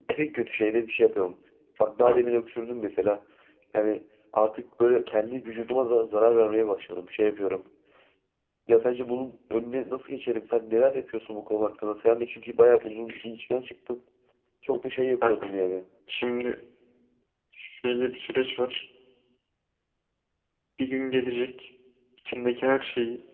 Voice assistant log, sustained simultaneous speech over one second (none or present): none